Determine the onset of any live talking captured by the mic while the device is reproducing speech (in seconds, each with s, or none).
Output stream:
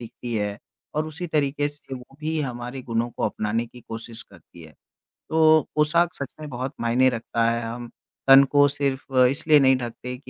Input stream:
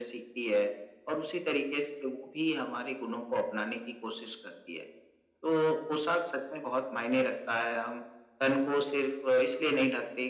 none